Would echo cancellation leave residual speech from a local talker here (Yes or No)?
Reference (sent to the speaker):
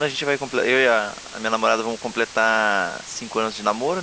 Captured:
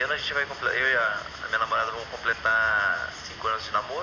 No